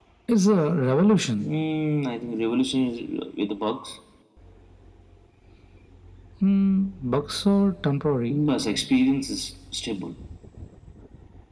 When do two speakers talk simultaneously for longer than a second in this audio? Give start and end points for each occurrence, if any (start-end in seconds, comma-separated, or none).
none